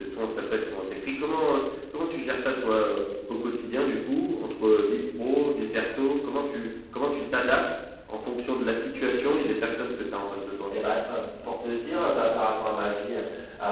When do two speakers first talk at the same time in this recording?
none

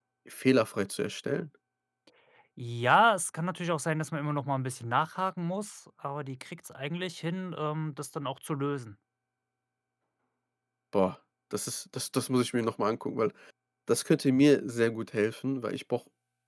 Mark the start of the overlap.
none

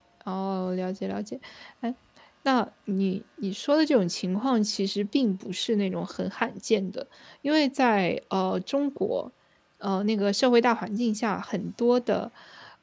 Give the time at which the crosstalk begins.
none

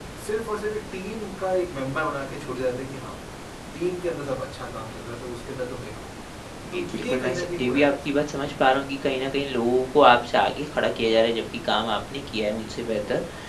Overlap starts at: 6.7 s

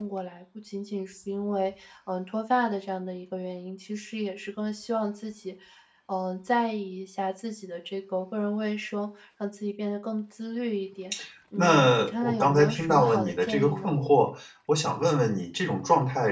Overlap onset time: 11.6 s

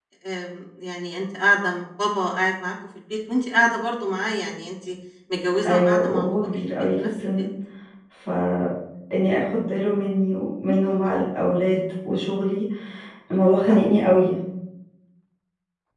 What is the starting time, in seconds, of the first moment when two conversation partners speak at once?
5.7 s

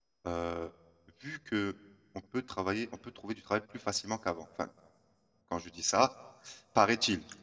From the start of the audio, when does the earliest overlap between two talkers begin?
none

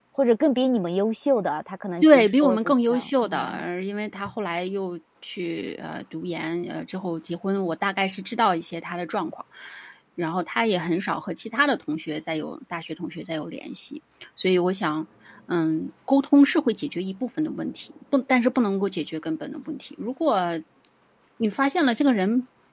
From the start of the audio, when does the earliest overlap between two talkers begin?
2.0 s

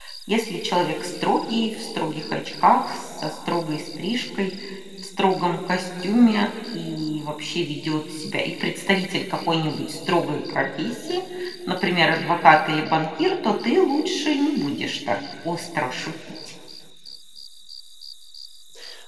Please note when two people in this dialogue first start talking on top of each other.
none

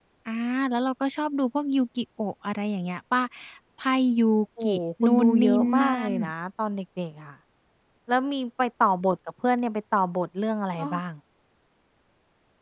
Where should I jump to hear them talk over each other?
4.6 s

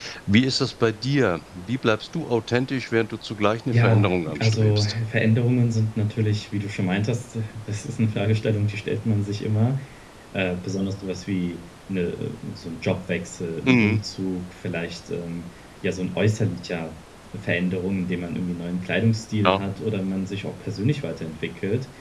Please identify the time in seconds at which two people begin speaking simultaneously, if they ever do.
3.7 s

